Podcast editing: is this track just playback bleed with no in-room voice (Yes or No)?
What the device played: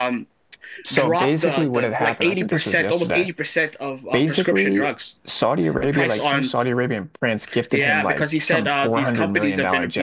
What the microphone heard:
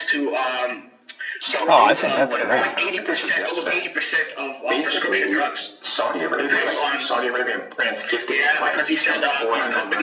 No